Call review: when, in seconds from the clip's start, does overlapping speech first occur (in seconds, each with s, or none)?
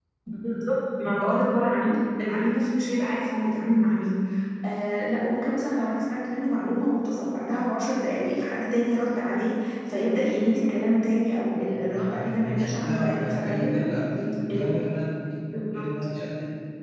11.7 s